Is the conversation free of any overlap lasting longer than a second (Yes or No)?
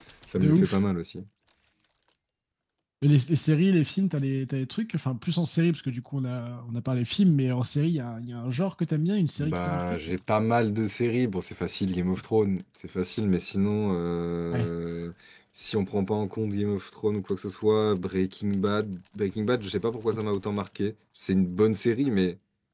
Yes